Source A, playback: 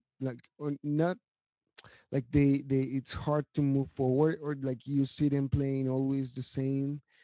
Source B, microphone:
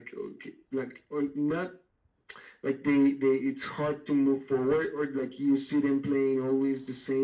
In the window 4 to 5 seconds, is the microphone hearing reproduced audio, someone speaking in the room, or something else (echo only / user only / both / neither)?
echo only